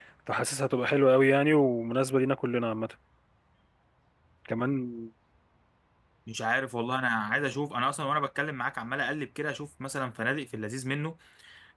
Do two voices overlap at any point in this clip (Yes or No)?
No